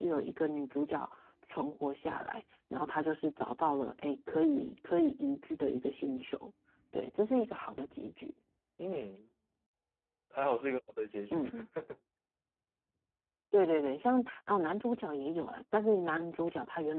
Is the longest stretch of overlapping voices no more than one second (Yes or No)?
Yes